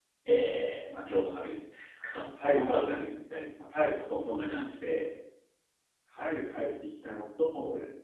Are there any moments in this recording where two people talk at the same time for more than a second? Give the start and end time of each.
none

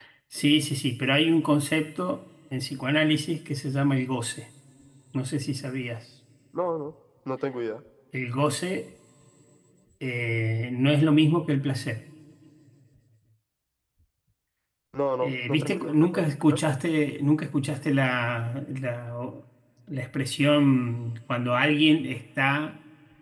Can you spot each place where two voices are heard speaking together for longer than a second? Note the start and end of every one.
15.2-16.6

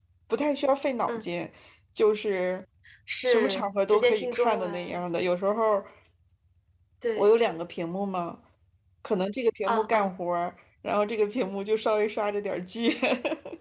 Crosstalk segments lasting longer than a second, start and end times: 3.3-5.0

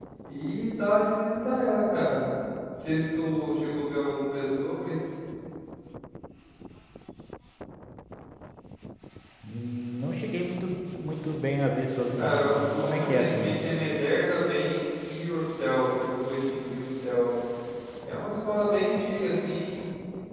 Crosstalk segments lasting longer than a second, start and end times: 12.2-13.7

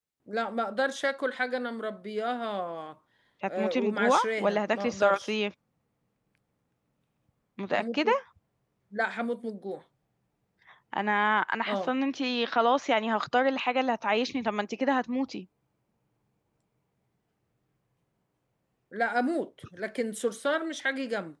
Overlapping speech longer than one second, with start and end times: 3.6-5.3

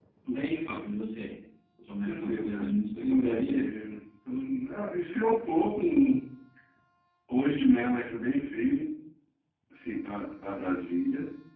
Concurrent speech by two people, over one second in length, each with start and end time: 2.0-3.7

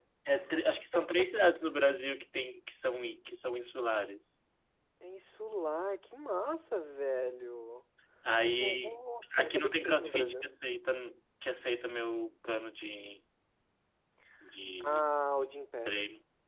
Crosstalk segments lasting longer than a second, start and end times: 8.5-10.4

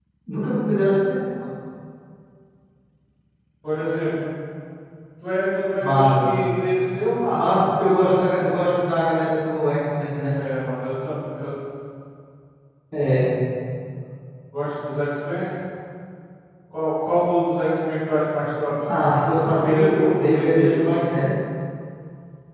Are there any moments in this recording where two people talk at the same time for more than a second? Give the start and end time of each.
19.6-21.0

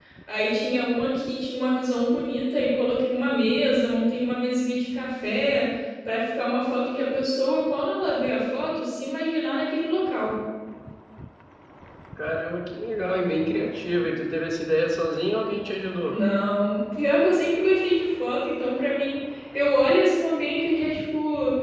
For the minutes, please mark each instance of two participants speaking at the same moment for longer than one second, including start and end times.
none

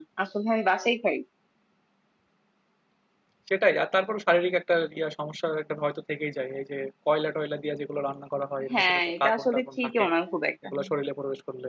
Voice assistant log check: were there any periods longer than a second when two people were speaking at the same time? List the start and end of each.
8.7-10.0

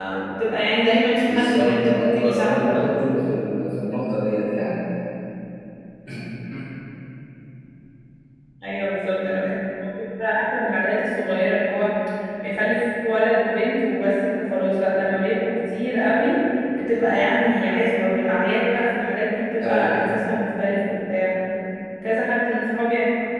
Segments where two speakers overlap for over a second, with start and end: 1.2-2.9

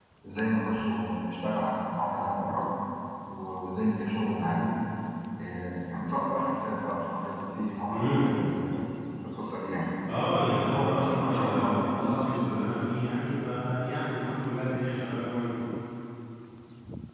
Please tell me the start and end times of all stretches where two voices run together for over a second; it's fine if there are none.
10.7-12.2

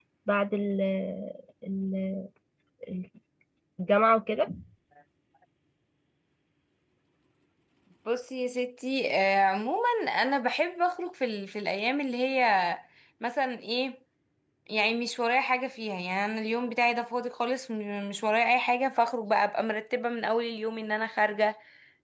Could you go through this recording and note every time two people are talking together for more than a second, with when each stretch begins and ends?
none

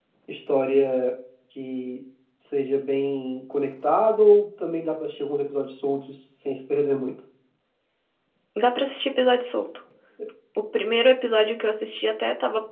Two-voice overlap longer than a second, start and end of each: none

